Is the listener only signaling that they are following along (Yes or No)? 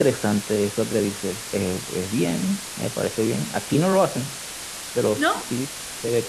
Yes